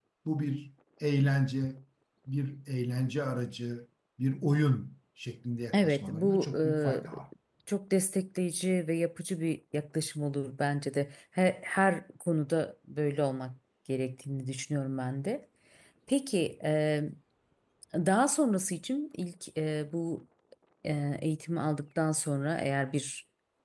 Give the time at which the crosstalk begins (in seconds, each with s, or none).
5.7 s